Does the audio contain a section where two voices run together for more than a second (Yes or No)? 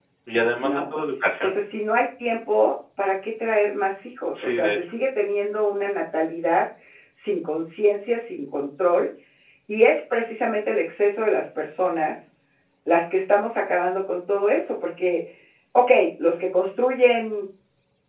No